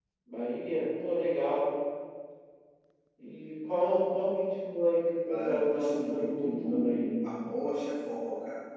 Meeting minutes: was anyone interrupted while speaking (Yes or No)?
Yes